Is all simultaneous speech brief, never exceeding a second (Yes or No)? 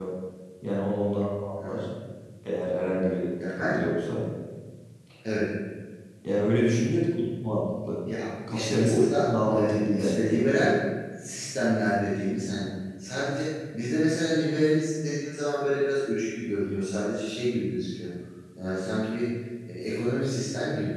No